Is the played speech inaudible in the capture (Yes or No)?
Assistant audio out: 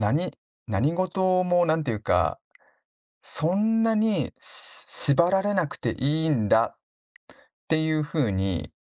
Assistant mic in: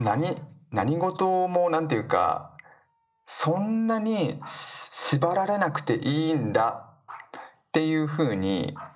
No